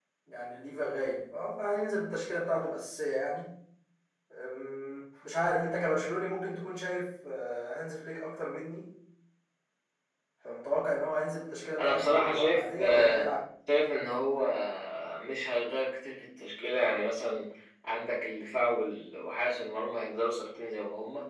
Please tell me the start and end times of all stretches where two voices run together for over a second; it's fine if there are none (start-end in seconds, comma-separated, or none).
11.8-13.3